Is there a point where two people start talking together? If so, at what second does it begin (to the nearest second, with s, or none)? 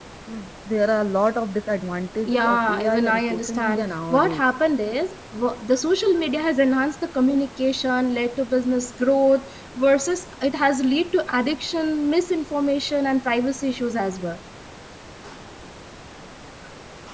2 s